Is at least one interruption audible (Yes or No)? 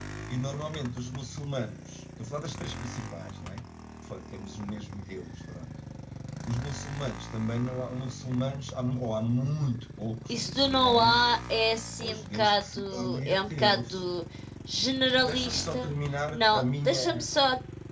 Yes